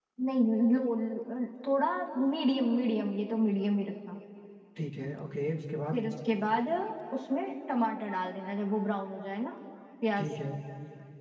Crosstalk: none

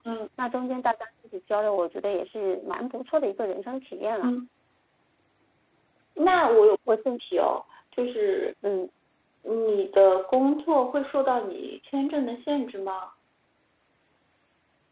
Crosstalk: none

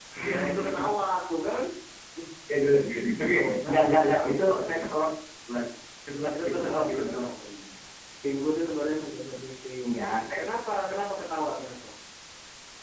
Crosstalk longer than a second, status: present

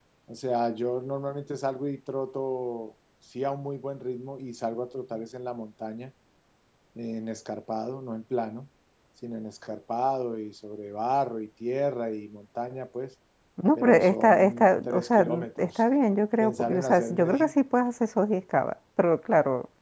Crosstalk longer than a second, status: present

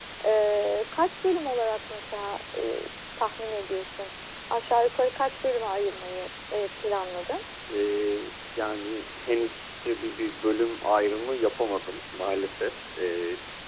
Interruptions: none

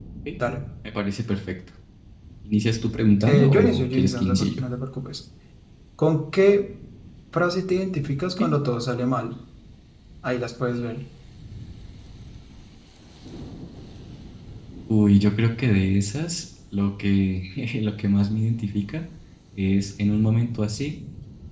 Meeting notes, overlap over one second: present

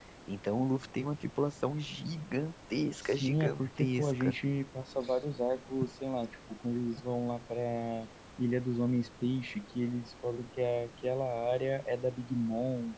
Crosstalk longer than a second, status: present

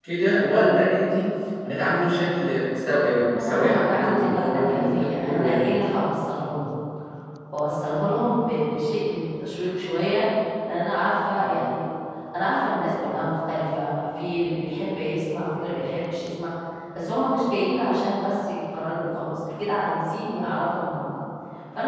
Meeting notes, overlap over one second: present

